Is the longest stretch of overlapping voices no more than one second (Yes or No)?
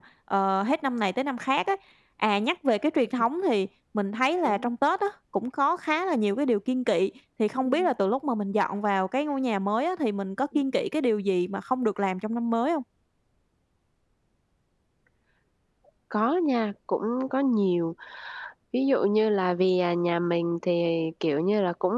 Yes